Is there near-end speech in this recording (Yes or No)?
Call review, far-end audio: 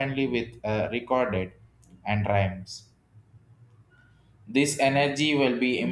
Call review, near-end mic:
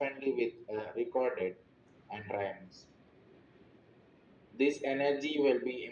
No